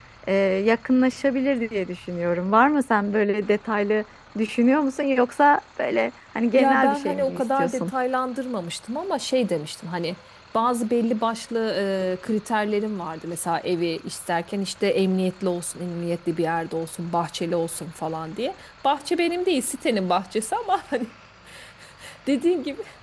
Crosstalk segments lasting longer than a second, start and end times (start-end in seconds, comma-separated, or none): 6.6-7.9